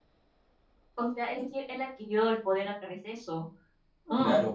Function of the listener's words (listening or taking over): taking over